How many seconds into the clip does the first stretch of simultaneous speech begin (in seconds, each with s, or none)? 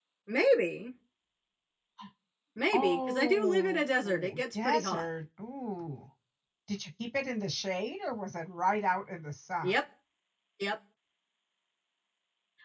2.7 s